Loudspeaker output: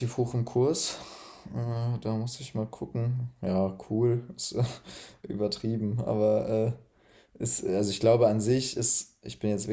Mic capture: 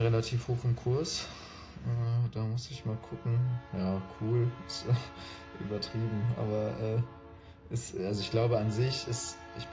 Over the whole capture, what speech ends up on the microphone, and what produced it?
echo only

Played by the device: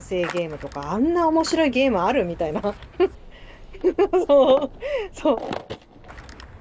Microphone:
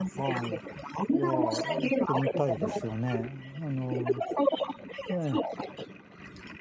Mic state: both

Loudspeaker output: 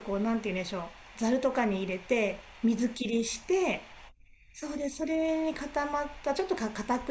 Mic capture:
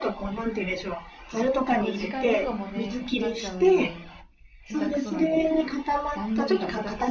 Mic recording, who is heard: both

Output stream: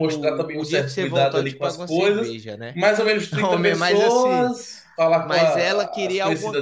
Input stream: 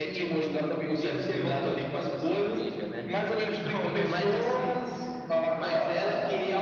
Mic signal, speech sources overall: echo only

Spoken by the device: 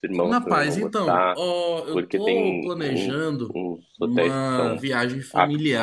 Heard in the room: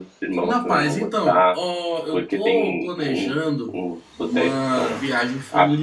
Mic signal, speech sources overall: echo only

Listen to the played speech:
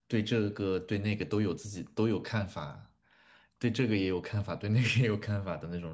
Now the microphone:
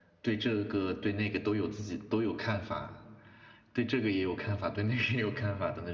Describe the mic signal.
echo only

